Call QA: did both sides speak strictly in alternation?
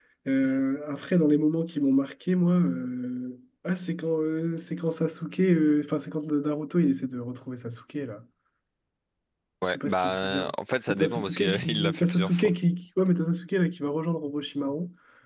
No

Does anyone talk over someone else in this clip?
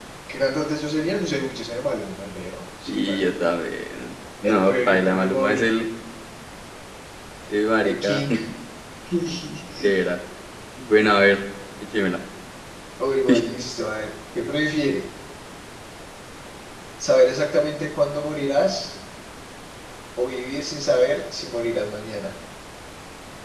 Yes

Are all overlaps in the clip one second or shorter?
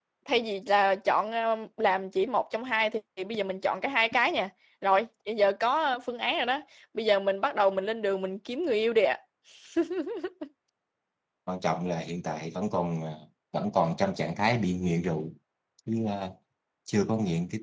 Yes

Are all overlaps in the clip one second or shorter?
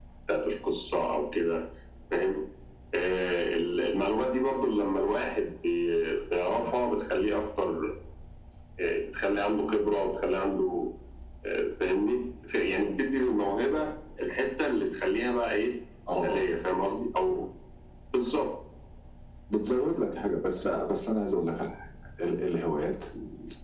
Yes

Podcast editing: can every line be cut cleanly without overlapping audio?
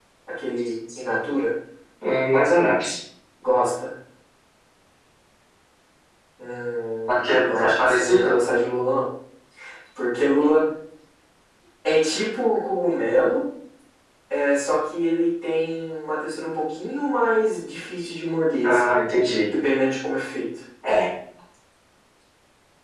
No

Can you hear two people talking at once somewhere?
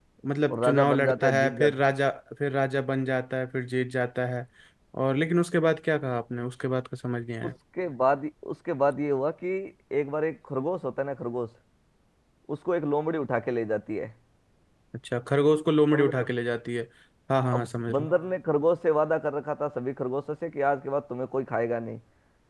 Yes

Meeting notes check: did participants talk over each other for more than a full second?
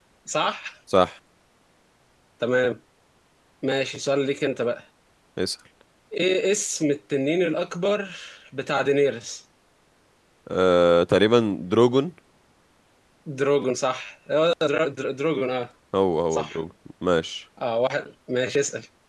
No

